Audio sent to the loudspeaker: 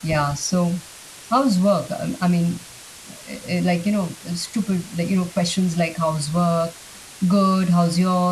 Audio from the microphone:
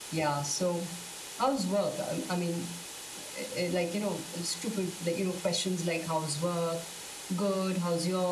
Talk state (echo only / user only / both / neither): echo only